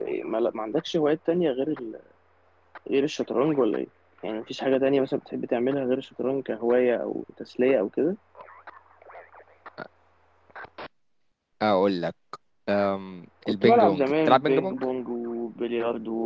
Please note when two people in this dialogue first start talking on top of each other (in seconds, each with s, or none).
13.5 s